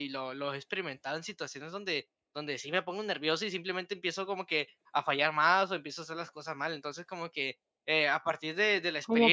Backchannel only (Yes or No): No